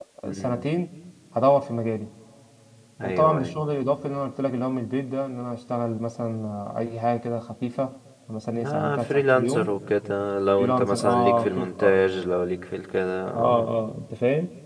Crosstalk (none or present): present